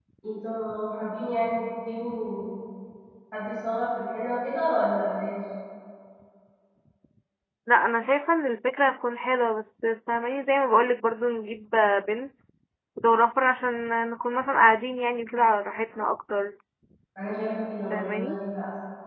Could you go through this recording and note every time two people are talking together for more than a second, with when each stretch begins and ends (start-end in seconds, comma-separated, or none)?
none